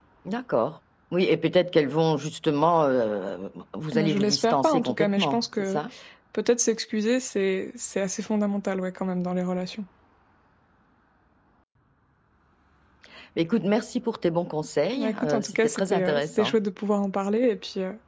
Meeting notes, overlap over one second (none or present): present